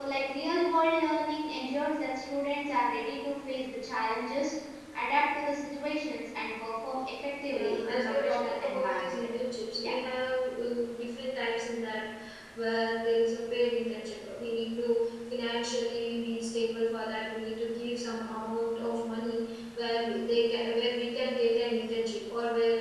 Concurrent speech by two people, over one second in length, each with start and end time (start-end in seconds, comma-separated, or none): 7.5-9.2